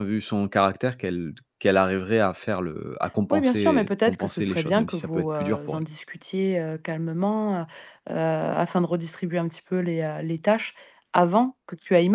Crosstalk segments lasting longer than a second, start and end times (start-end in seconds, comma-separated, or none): 3.3-5.8